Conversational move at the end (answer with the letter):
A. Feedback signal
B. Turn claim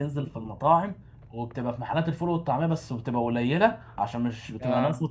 A